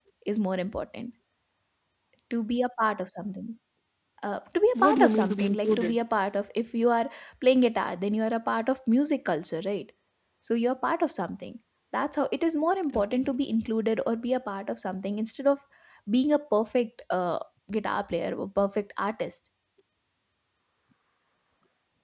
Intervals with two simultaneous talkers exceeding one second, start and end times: 4.8-6.0

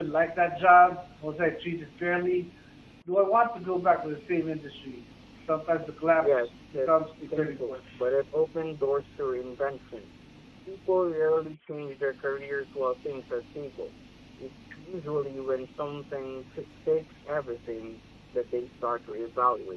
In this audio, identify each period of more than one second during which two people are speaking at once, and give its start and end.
6.2-7.7

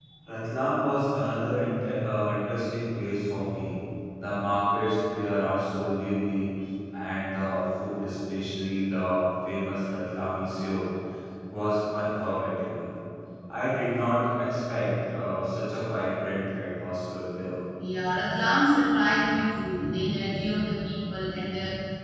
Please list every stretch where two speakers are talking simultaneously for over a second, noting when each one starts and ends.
none

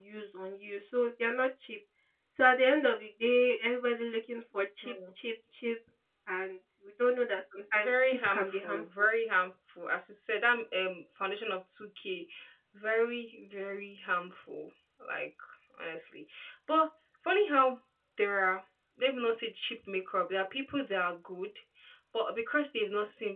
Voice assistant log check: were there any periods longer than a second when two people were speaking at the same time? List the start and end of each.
7.7-9.1

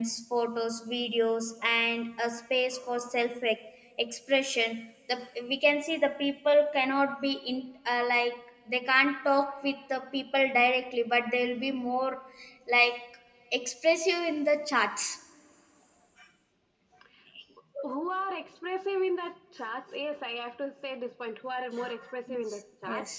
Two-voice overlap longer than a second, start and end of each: none

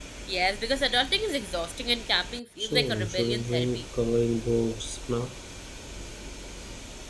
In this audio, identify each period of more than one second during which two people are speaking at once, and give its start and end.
2.6-3.8

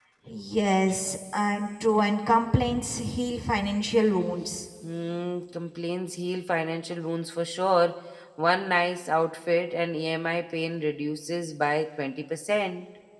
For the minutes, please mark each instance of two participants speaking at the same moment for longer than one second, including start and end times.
none

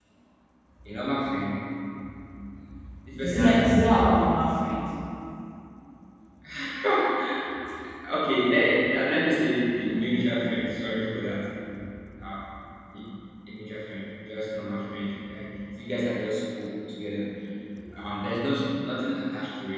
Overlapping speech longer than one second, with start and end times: 3.2-4.4

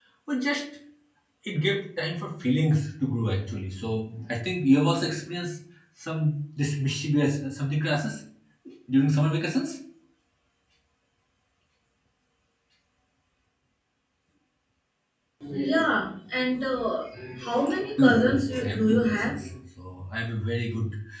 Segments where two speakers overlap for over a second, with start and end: 18.0-19.4

